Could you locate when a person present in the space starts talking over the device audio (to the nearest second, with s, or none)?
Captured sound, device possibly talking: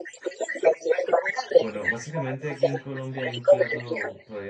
2 s